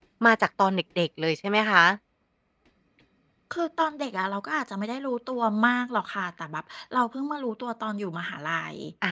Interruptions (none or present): none